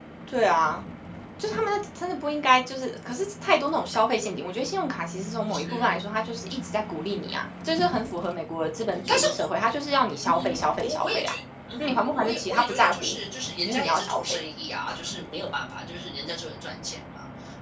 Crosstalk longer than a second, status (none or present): present